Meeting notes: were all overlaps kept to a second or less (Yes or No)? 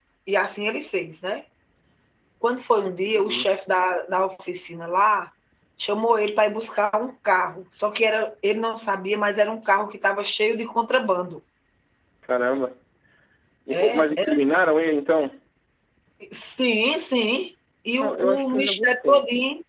No